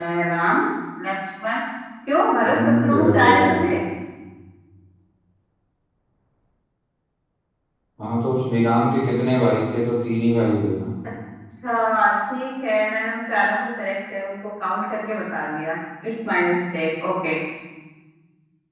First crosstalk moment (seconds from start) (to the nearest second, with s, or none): 2 s